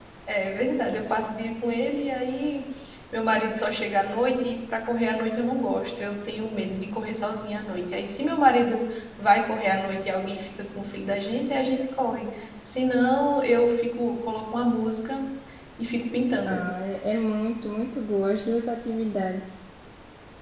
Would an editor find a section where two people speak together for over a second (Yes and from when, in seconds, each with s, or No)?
No